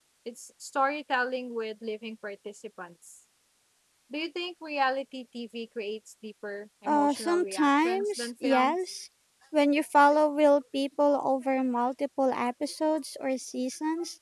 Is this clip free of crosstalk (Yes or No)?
No